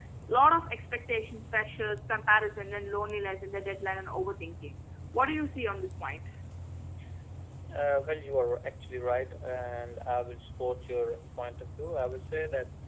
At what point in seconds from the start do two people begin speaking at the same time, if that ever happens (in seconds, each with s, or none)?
none